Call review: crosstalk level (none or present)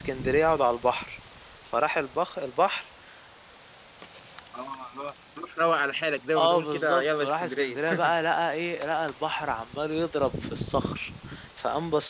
present